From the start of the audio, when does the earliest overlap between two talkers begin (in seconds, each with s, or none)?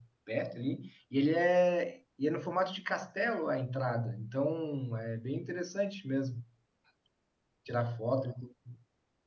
none